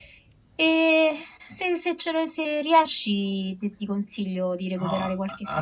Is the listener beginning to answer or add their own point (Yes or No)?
Yes